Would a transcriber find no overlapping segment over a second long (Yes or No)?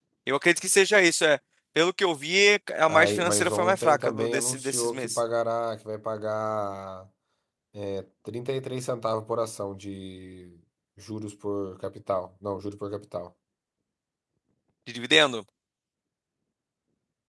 No